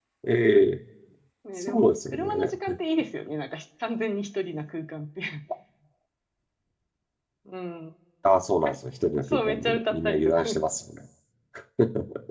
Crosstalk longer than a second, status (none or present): present